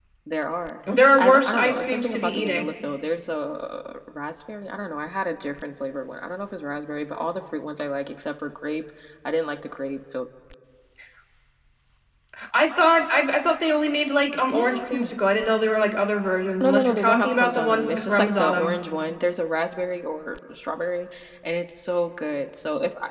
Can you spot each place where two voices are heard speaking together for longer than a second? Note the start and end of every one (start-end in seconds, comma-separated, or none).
1.1-2.7, 16.6-18.8